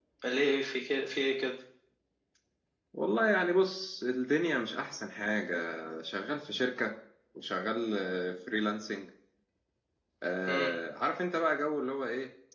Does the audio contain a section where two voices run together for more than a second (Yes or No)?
No